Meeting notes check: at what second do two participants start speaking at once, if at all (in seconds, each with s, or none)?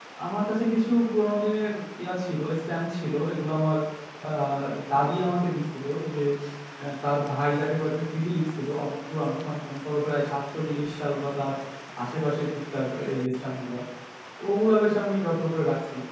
none